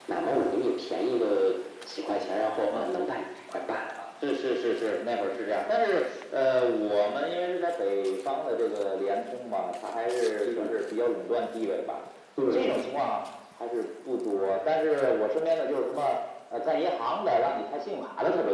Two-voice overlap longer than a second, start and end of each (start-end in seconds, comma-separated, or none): none